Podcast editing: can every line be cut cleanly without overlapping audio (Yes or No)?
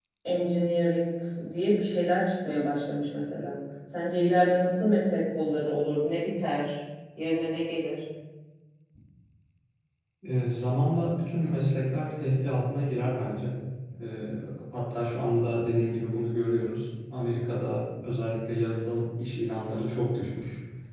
Yes